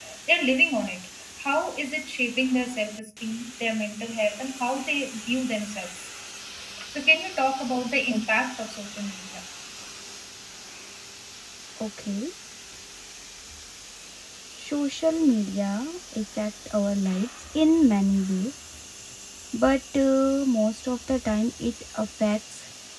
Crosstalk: none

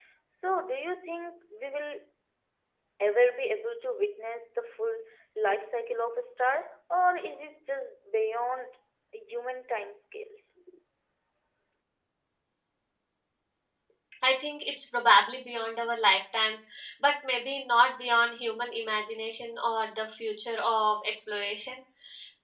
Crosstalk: none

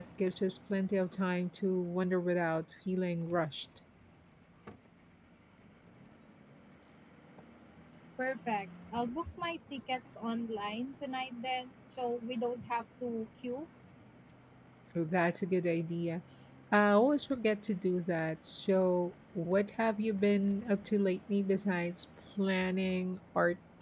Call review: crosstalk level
none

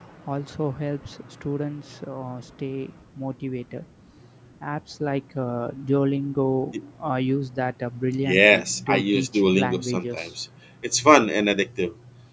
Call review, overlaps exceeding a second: present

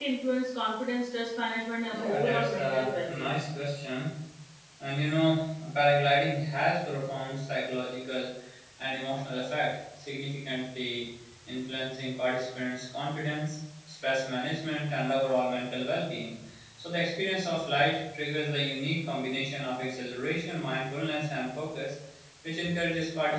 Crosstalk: present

